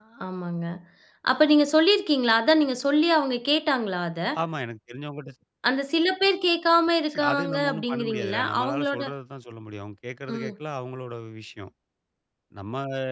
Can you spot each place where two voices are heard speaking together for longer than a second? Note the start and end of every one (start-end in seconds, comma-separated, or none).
7.1-9.0